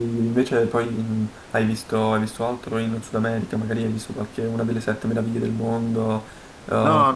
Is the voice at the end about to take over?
Yes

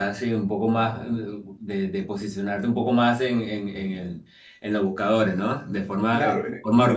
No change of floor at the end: No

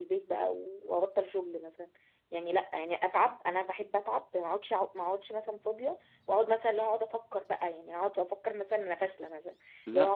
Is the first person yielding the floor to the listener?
Yes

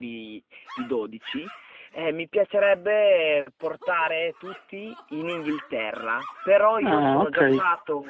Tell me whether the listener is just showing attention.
Yes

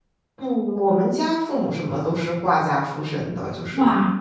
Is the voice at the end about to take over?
No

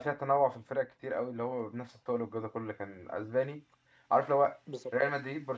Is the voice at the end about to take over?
No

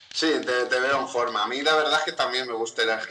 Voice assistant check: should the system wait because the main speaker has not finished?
Yes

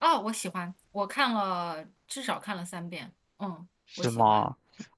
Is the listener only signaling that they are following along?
No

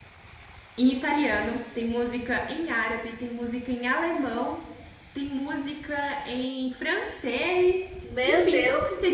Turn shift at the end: No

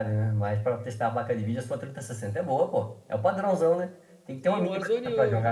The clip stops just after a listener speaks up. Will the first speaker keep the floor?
No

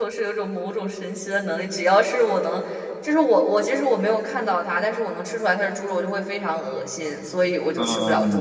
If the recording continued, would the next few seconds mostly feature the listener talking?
Yes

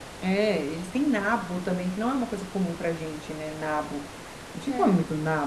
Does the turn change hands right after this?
No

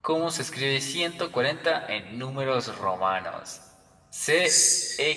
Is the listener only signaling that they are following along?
Yes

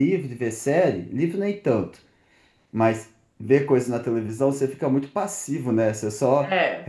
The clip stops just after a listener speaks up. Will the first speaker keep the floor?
Yes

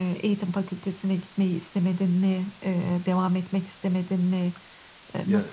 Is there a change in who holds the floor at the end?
Yes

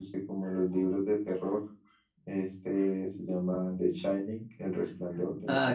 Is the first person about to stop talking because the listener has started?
Yes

